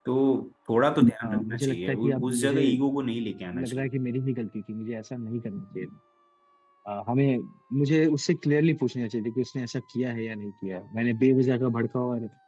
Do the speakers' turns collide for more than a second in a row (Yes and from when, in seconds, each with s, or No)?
Yes, from 1.2 s